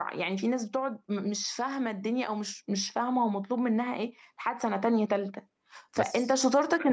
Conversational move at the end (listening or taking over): listening